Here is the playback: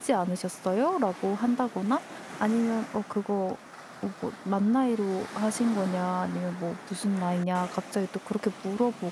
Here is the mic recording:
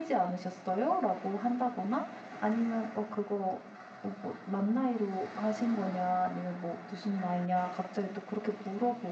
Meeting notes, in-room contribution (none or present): none